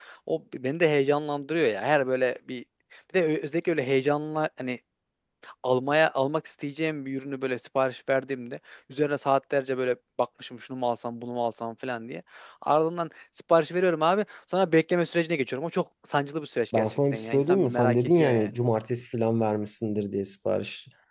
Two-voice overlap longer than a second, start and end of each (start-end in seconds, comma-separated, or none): 16.8-18.5